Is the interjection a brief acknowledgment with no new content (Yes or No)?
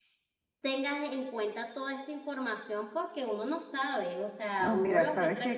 No